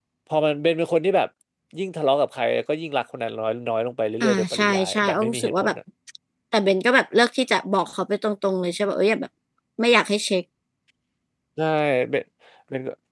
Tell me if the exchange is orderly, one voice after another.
No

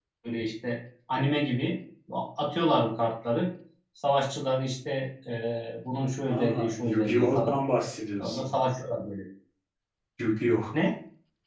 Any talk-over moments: Yes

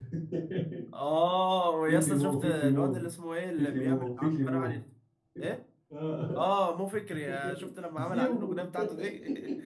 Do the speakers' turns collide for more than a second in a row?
Yes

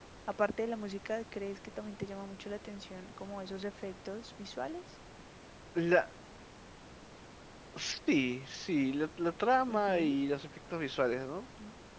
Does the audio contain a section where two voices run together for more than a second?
No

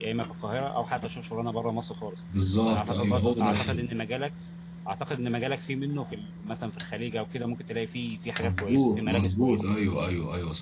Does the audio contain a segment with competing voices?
Yes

